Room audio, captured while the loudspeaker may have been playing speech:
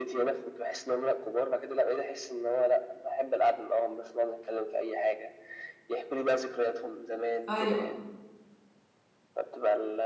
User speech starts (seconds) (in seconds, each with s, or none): 7.5 s